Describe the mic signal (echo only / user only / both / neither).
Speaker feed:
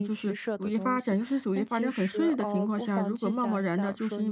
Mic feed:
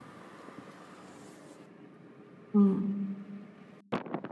user only